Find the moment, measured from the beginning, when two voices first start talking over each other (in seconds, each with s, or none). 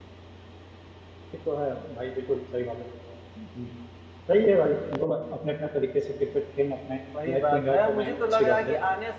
7.1 s